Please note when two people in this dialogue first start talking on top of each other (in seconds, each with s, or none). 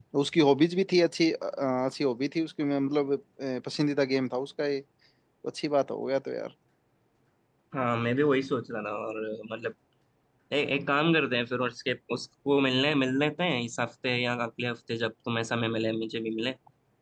none